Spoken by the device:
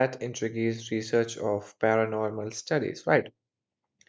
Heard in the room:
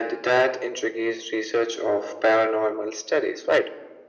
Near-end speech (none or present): none